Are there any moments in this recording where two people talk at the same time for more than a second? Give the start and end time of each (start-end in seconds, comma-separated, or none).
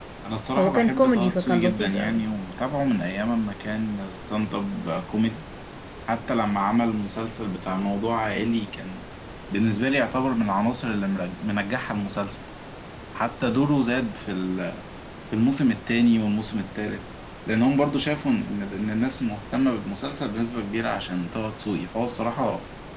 0.6-2.2